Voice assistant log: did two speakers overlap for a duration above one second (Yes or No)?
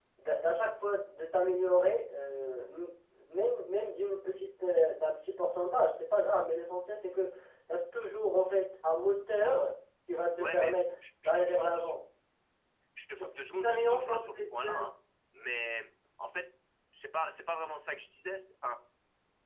Yes